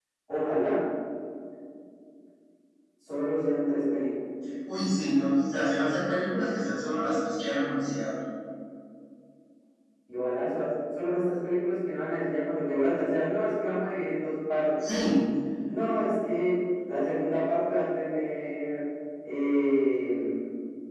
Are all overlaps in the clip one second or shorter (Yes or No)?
Yes